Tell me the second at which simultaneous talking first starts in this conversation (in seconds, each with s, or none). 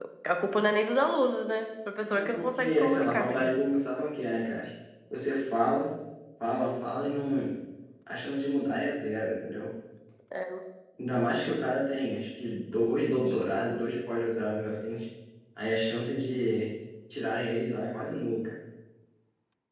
2.0 s